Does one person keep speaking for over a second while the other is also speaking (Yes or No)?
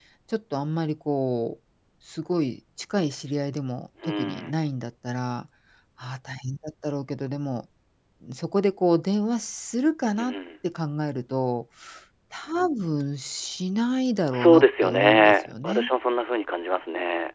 Yes